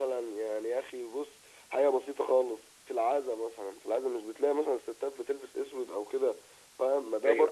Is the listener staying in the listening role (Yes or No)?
Yes